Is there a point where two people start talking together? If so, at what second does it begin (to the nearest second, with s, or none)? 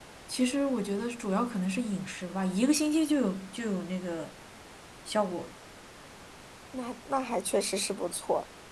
none